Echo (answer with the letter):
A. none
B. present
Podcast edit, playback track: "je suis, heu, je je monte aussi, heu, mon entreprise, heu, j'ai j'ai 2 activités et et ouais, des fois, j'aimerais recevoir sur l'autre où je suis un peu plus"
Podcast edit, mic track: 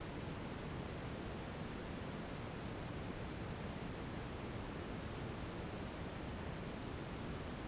A